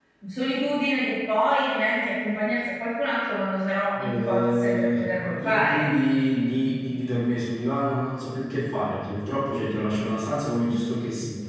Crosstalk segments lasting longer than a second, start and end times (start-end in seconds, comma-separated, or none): 4.0-5.9